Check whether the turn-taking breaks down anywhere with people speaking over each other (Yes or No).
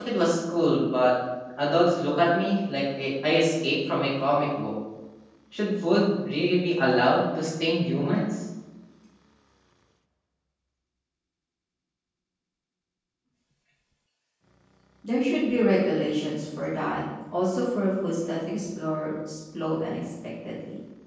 No